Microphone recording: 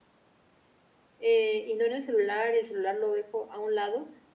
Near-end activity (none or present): present